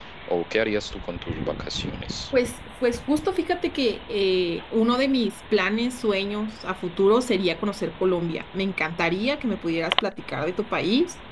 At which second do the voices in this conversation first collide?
none

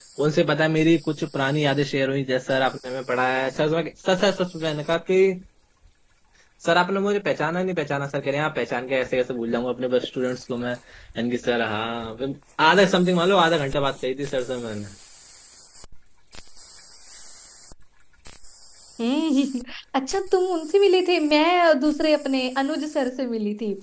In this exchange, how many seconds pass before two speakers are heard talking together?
none

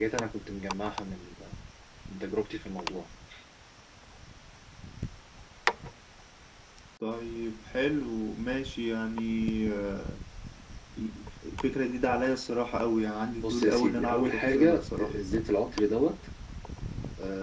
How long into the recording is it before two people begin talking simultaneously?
13.4 s

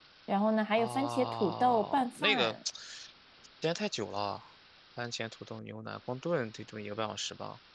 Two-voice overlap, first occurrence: 0.7 s

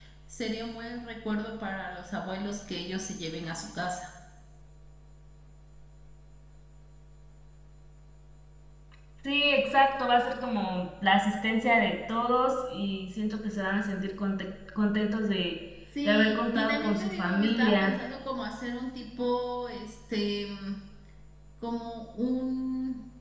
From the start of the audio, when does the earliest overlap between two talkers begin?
16.1 s

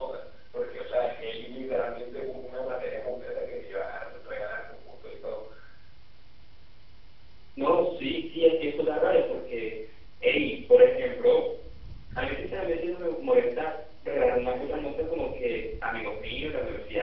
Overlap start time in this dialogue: none

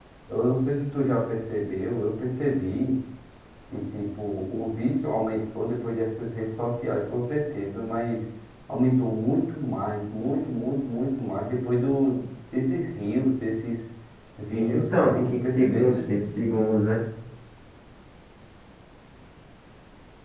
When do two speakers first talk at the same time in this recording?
14.5 s

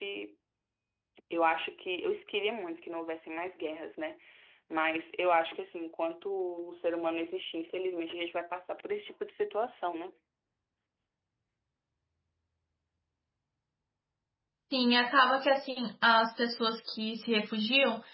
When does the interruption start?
none

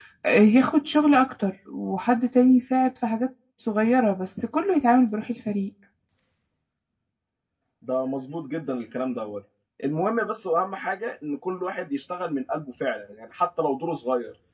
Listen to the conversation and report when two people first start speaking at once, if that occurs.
none

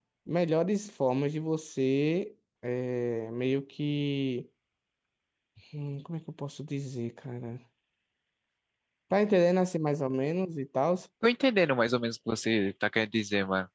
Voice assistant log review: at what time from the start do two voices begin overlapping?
none

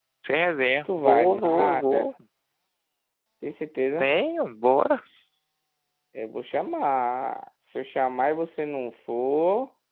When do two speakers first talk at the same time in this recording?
0.8 s

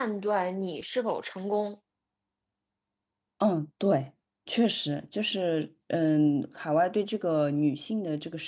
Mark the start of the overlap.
none

